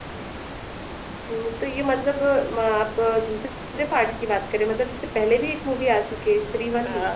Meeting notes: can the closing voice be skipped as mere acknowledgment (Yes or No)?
No